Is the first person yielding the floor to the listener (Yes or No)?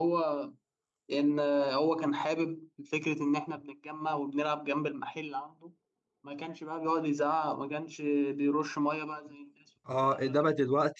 Yes